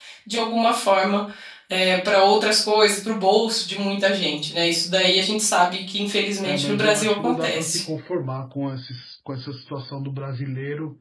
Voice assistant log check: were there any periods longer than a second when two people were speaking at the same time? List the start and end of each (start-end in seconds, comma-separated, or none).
6.4-7.8